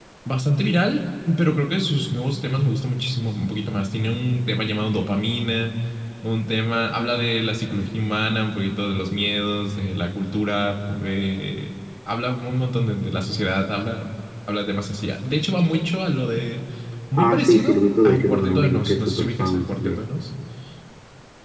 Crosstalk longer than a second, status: present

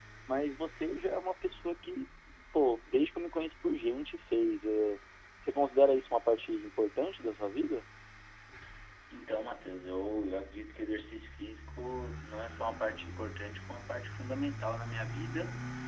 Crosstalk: none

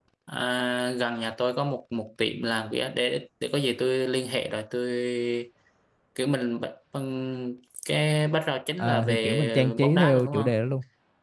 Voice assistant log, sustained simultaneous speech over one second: present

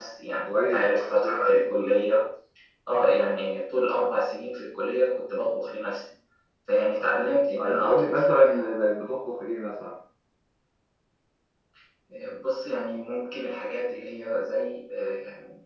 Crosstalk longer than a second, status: present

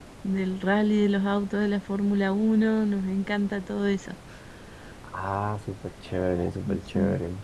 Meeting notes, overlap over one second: none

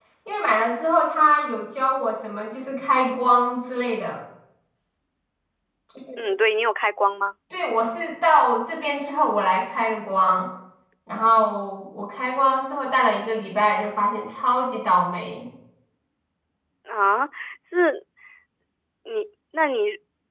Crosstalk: none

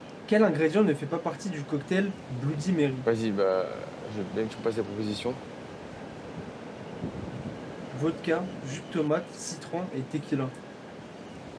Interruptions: none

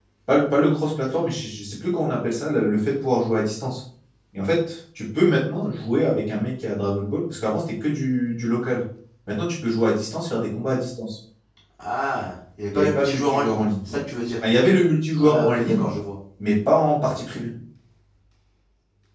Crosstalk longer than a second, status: present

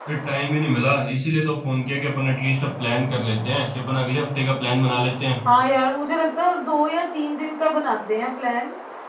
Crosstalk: none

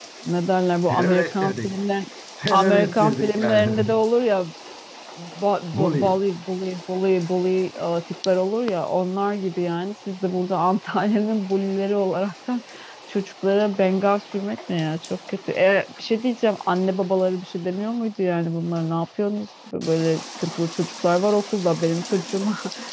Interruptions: present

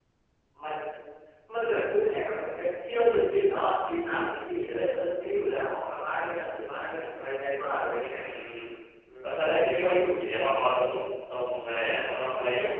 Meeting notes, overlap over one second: none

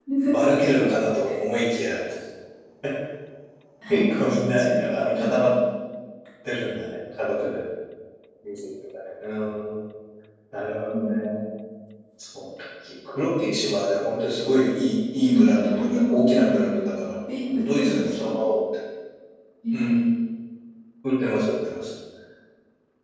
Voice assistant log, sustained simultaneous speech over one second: present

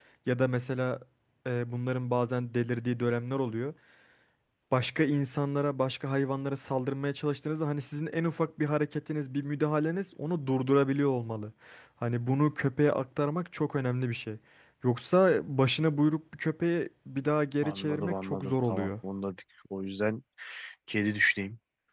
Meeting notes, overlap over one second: present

